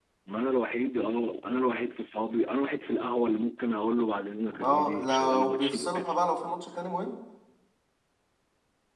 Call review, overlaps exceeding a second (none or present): present